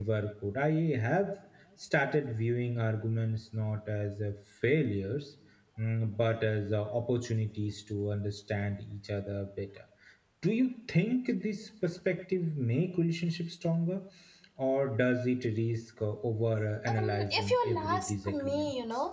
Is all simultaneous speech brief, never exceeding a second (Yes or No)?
No